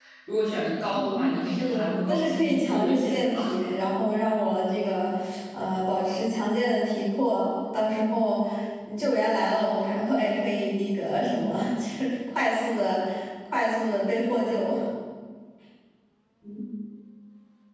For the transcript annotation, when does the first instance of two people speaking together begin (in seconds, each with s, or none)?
0.9 s